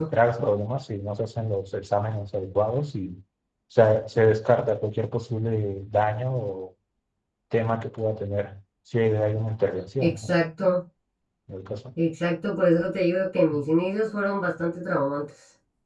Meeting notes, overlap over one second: none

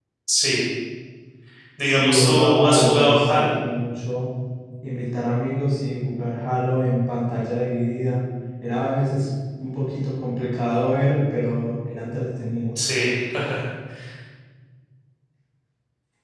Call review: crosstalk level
present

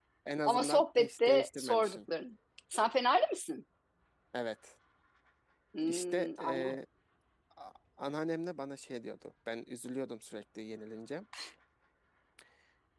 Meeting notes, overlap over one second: present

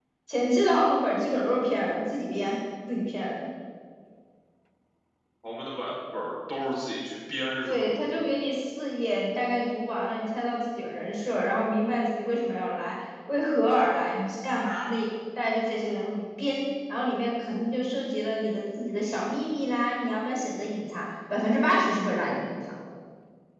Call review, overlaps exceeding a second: none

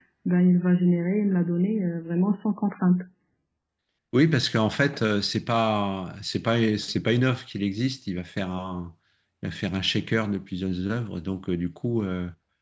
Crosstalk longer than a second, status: none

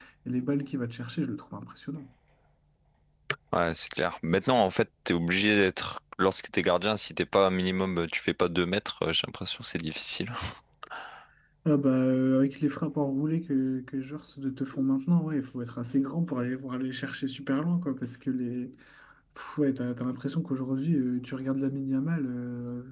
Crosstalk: none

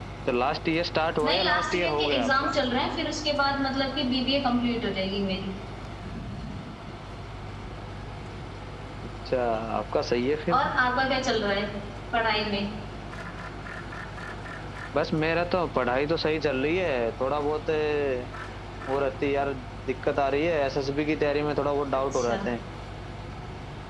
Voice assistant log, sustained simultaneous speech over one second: present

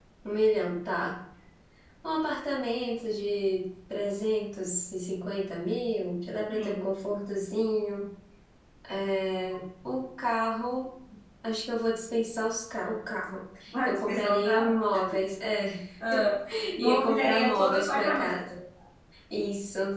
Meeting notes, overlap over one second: present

